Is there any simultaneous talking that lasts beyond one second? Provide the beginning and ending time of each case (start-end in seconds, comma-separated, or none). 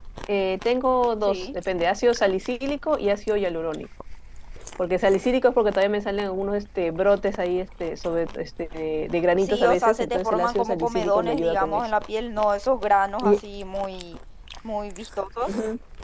9.4-11.8